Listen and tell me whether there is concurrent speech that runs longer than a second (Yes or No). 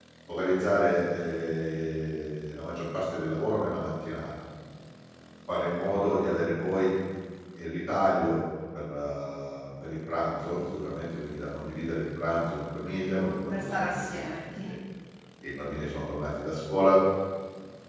Yes